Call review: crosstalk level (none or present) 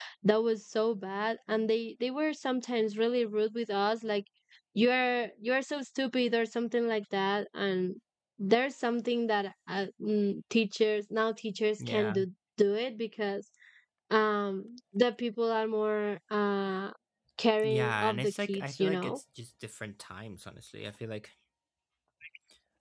present